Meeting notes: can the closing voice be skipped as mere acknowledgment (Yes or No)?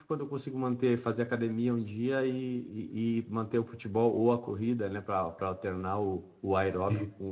Yes